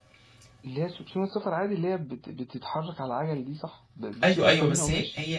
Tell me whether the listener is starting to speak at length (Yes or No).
Yes